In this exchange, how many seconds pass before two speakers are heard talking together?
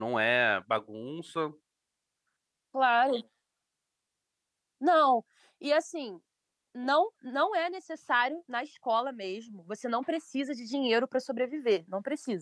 none

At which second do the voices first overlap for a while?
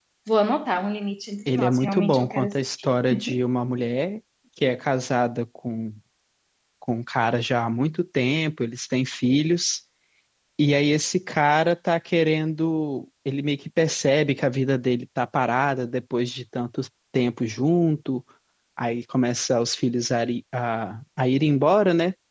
1.5 s

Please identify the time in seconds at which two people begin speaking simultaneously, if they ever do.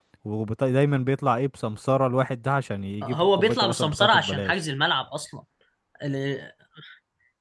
3.0 s

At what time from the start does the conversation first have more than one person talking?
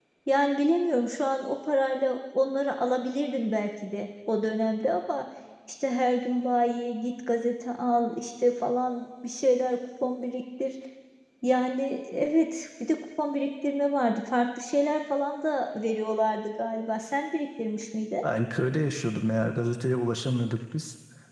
none

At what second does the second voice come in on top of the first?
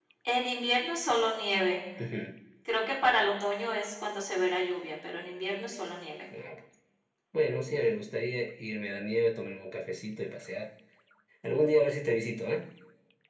none

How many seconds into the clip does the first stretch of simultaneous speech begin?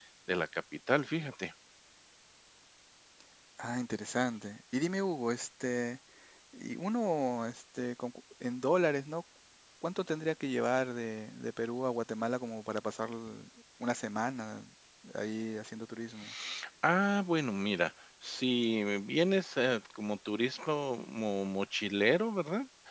none

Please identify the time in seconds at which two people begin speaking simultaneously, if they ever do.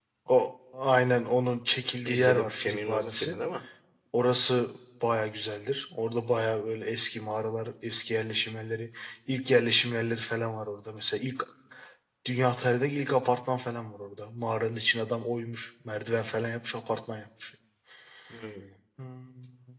2.0 s

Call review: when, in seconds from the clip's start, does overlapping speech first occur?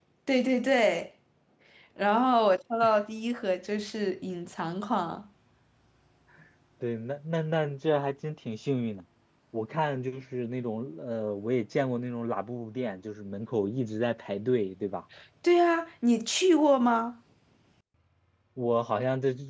none

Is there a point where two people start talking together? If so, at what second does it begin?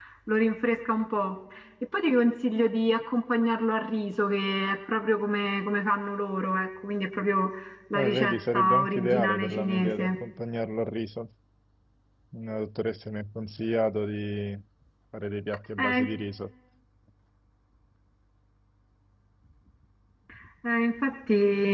7.9 s

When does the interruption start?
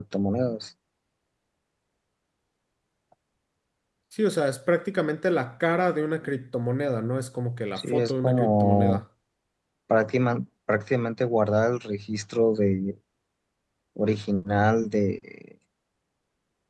7.8 s

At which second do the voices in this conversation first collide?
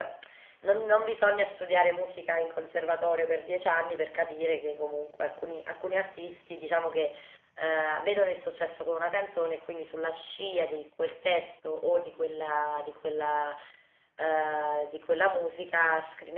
none

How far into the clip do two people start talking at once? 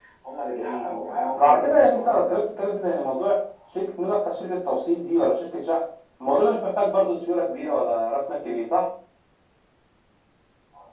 0.5 s

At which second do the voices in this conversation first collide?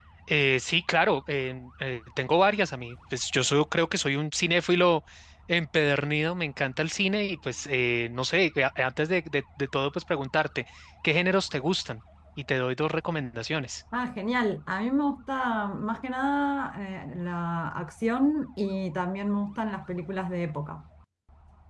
none

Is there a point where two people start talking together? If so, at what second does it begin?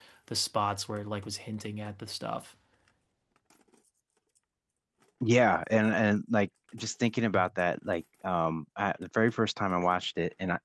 none

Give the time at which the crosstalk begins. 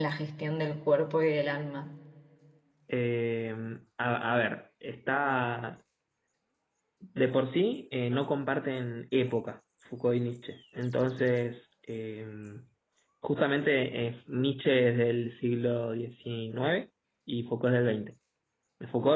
none

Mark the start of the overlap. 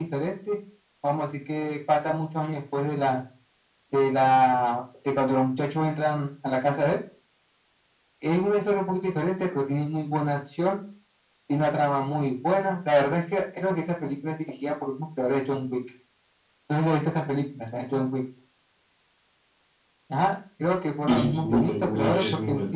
21.1 s

